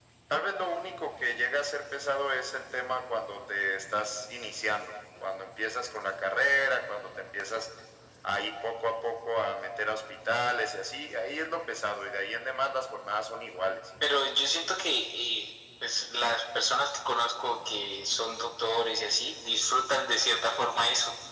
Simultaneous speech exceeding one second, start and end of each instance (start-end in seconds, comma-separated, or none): none